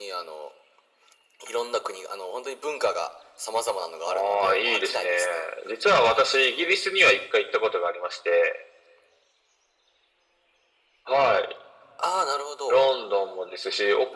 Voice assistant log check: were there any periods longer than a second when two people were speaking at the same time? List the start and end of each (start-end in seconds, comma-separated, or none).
4.1-5.4